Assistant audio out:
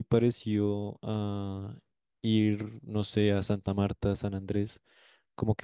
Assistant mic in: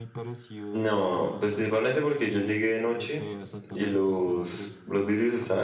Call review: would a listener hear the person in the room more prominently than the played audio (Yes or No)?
Yes